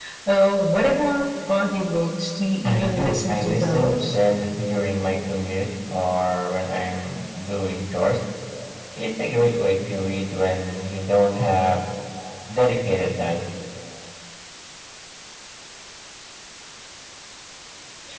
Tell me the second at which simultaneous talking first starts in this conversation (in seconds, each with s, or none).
2.6 s